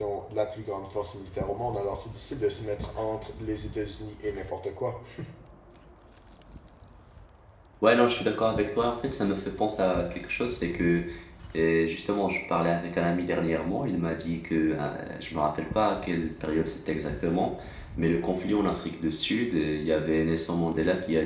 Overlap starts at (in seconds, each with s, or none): none